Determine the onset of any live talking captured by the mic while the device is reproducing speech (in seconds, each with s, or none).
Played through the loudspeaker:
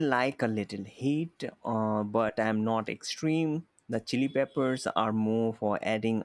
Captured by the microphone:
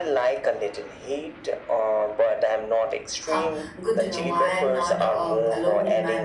3.2 s